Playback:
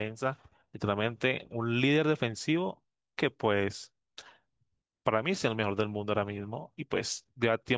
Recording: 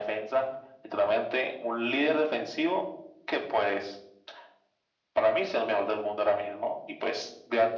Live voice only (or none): none